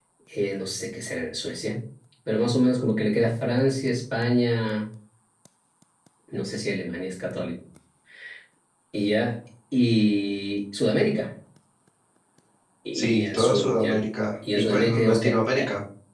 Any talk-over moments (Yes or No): Yes